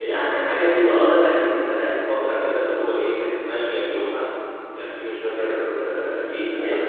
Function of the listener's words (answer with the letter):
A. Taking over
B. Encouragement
B